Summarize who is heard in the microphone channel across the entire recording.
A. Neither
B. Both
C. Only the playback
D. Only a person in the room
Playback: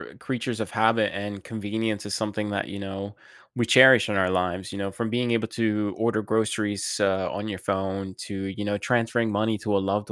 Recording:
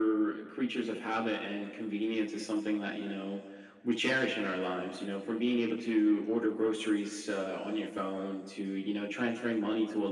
C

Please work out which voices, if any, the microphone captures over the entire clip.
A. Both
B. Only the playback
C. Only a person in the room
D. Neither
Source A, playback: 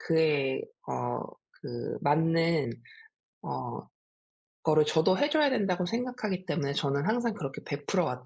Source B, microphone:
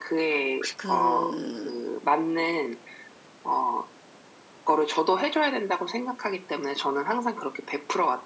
A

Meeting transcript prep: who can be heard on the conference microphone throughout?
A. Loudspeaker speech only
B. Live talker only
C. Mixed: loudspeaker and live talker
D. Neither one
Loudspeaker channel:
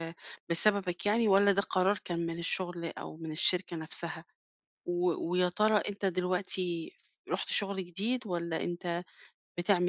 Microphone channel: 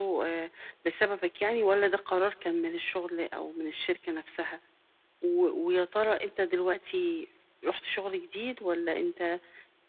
A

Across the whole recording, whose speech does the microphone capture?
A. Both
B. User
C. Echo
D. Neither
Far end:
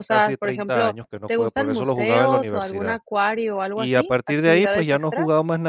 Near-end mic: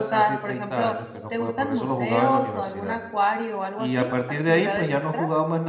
C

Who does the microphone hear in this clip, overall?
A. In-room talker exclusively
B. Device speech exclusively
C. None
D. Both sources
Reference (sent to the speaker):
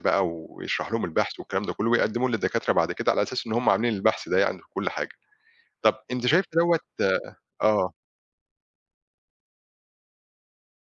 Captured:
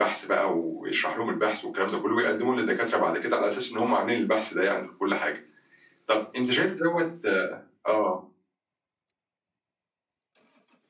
B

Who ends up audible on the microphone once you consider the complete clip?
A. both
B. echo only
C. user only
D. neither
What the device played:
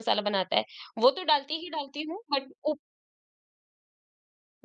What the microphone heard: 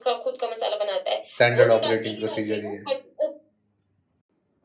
A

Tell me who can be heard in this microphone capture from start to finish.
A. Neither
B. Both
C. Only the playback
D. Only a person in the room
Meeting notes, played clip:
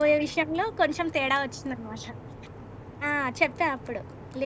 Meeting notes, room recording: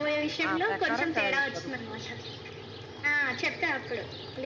B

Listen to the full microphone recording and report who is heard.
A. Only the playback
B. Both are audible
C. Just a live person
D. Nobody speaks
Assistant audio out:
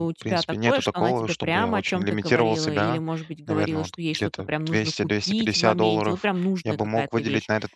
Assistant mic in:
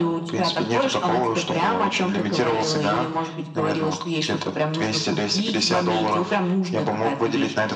A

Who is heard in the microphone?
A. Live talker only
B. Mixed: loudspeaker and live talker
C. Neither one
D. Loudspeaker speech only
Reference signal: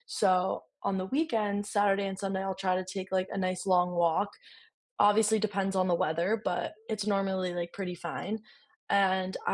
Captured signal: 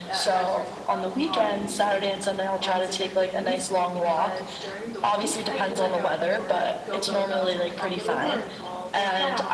B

